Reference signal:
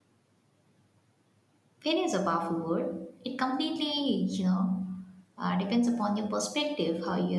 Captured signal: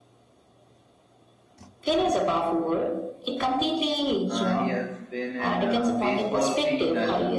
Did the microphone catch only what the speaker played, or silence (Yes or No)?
No